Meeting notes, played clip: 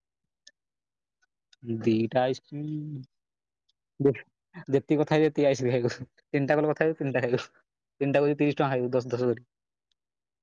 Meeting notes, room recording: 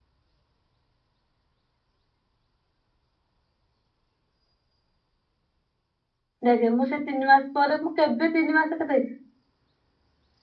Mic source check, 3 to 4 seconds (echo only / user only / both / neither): neither